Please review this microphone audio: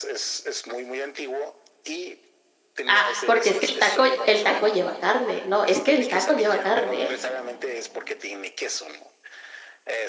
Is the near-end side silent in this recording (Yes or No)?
No